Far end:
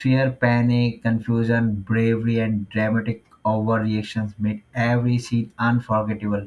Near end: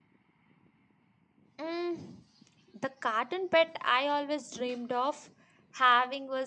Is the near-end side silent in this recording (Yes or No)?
No